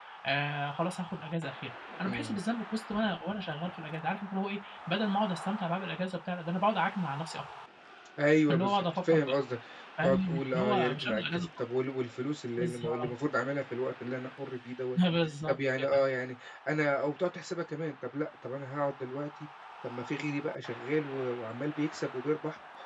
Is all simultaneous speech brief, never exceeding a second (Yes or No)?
No